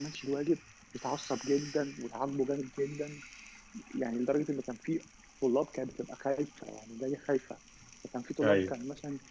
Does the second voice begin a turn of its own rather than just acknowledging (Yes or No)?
No